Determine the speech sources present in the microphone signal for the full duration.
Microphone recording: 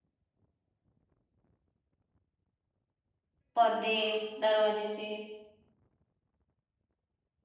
user only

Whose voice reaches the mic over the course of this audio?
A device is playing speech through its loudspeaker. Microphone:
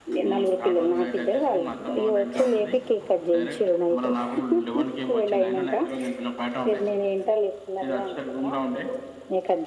both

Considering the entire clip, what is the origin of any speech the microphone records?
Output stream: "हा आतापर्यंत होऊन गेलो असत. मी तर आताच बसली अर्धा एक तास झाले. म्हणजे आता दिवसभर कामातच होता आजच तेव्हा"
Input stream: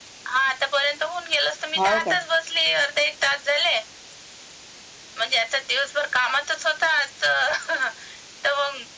both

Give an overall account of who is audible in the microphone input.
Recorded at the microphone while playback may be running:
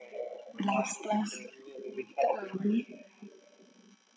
echo only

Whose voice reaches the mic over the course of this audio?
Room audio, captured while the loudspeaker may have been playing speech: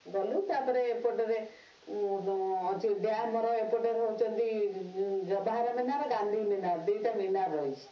echo only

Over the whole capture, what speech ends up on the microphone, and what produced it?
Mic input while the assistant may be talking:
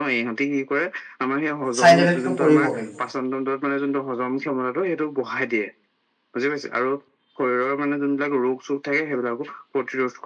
both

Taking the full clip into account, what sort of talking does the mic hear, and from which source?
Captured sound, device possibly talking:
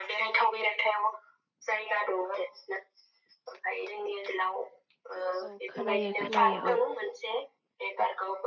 both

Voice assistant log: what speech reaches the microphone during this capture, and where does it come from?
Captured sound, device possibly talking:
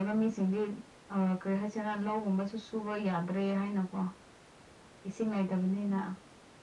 echo only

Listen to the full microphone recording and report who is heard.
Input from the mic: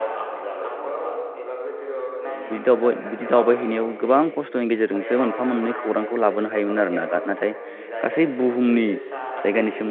both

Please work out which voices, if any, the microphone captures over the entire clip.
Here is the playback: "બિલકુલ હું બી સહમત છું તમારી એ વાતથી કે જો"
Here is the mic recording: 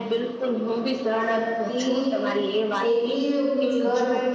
both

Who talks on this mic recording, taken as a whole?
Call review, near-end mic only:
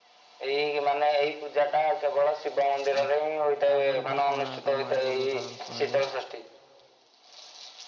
both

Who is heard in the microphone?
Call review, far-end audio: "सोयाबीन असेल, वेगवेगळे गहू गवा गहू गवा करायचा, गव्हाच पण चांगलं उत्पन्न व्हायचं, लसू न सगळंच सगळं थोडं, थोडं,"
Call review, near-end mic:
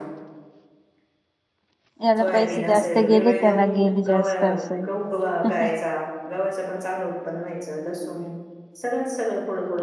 both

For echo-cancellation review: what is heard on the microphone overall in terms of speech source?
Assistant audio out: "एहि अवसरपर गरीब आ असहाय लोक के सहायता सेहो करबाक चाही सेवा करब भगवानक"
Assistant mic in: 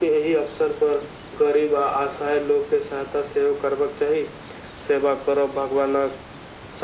echo only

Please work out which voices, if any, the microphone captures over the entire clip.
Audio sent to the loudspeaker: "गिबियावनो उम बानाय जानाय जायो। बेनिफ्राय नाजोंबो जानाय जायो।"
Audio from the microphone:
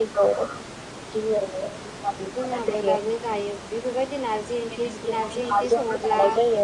both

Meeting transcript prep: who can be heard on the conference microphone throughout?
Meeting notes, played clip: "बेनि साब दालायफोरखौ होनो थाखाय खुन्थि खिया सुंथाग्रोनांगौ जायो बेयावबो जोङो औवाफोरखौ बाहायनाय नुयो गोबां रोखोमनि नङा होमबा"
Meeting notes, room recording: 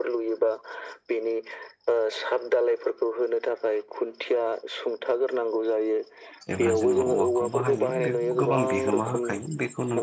both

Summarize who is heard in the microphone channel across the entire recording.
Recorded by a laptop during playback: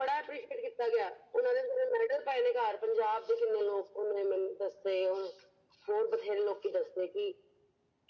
echo only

